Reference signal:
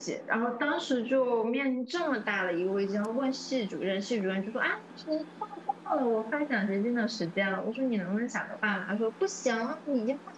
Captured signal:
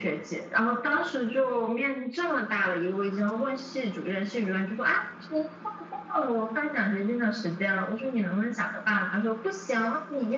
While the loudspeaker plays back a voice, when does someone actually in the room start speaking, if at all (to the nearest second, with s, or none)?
none